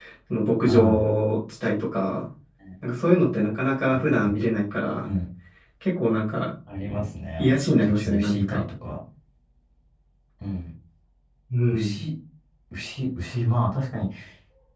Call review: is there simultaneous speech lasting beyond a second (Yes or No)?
Yes